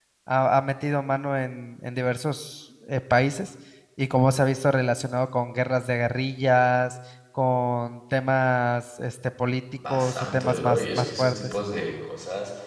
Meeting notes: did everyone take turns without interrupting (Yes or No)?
No